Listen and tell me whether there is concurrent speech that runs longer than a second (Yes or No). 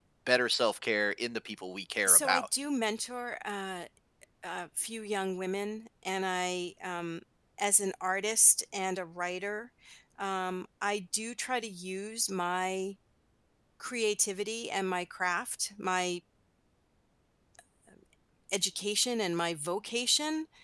No